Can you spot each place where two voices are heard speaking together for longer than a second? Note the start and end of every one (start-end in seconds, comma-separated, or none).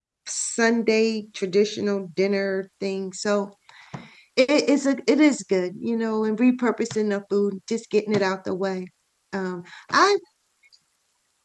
none